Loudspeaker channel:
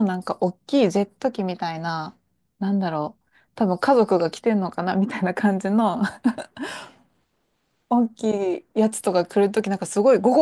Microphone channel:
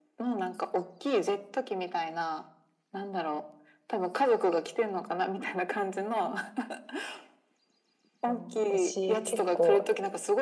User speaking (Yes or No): Yes